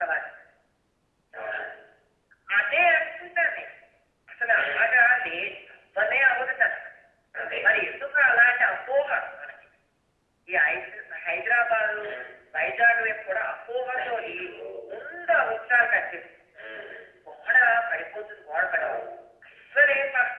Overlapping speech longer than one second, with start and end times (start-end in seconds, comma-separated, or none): none